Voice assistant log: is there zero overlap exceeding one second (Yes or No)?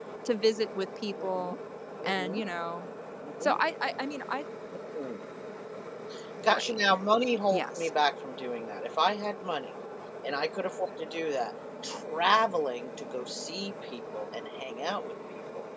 Yes